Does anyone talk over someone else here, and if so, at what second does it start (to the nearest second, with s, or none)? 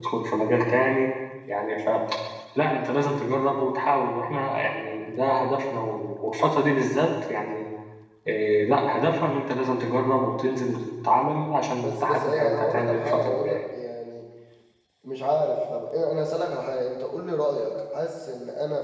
12 s